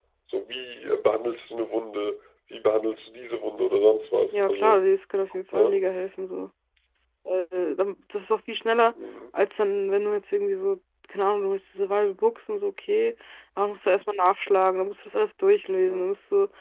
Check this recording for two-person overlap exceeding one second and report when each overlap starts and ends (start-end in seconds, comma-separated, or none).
none